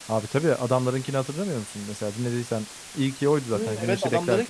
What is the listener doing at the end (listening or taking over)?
taking over